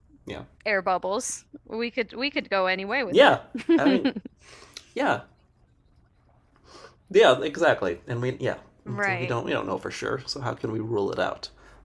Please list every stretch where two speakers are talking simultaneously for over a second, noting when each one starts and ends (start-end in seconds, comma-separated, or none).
none